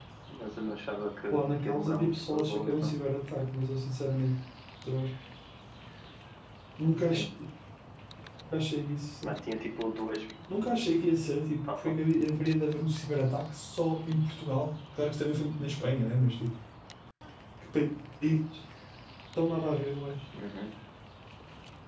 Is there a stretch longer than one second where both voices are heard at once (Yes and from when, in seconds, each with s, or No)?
Yes, from 1.3 s